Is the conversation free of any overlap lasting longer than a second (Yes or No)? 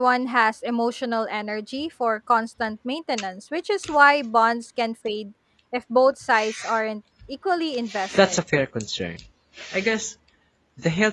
Yes